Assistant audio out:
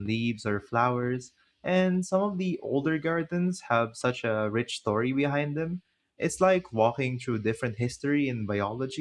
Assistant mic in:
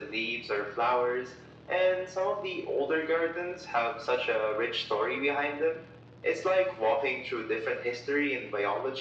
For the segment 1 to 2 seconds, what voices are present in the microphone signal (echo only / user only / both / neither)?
echo only